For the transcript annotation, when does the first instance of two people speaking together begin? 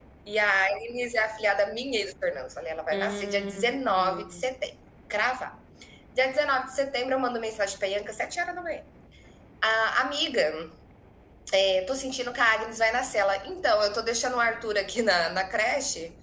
2.9 s

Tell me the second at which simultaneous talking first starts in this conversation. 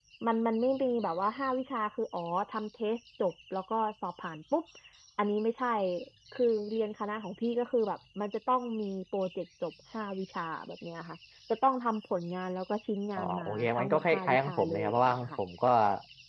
13.2 s

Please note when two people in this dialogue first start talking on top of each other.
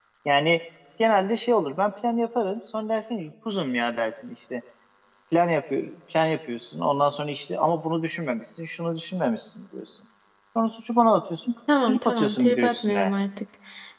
11.7 s

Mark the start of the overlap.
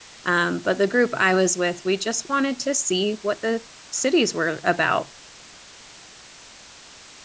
none

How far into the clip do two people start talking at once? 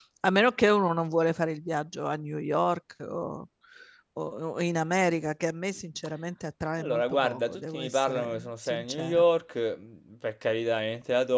6.8 s

